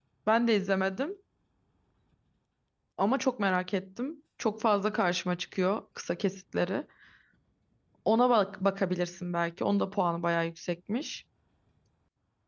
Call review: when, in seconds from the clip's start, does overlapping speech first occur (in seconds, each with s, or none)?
none